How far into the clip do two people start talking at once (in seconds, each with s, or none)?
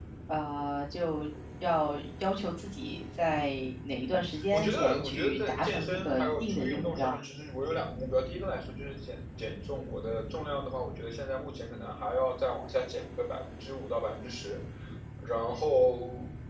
4.0 s